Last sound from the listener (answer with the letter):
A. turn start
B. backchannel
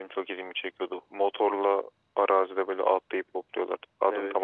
A